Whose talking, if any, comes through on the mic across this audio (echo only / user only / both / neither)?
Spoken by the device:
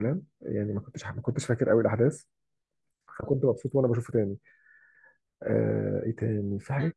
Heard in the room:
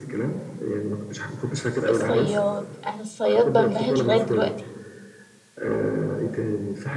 both